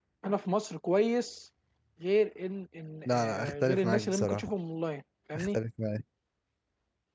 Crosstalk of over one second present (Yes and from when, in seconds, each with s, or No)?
Yes, from 3.0 s